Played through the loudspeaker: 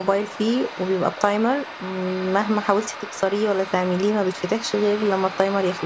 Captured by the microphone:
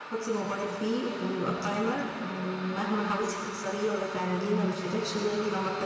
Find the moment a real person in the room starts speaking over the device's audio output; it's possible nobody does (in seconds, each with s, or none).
none